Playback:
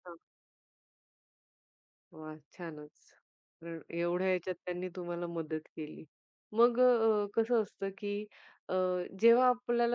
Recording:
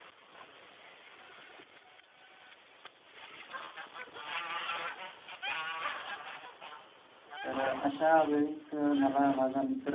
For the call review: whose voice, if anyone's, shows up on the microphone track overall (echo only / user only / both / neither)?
user only